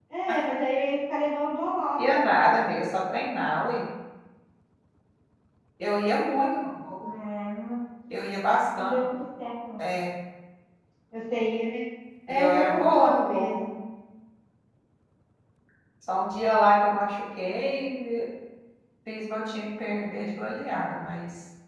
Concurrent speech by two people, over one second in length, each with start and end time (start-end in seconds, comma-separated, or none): 12.3-13.6